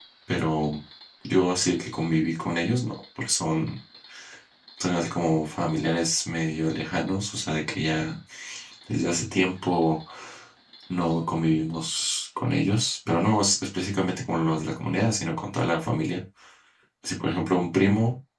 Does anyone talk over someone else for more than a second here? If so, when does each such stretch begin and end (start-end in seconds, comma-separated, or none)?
none